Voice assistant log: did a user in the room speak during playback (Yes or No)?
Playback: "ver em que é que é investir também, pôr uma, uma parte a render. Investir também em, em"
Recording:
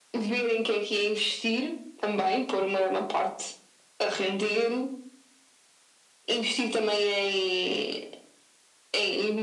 No